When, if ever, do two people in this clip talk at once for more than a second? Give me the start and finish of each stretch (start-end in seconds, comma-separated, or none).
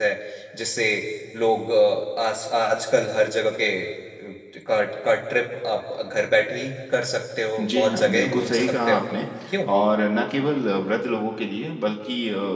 7.7-9.0